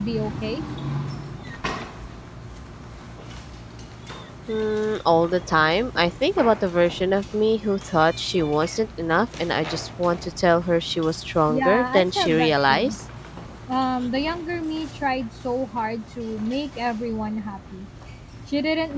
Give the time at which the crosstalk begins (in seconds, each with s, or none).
11.5 s